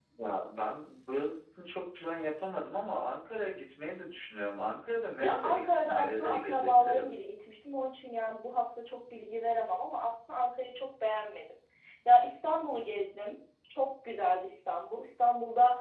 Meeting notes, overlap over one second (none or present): present